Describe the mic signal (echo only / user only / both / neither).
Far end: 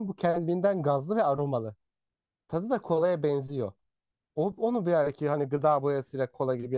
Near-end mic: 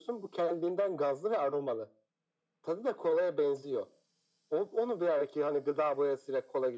echo only